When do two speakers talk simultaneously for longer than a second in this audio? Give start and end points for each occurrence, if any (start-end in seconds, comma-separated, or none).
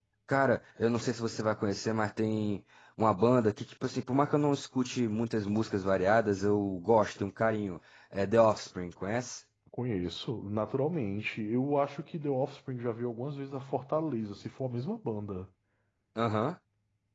none